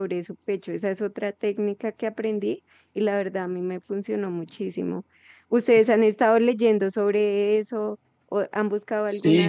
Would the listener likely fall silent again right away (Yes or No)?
No